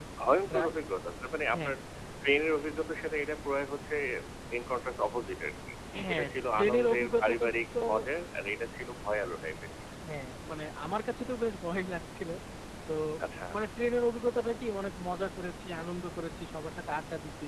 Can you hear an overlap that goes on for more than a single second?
Yes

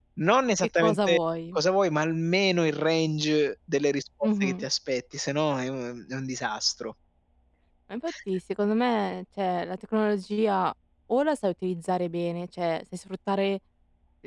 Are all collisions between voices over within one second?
Yes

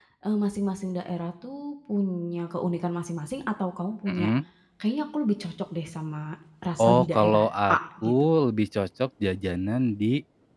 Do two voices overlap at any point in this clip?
Yes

